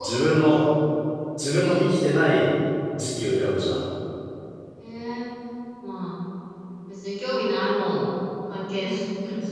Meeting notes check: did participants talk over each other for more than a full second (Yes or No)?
No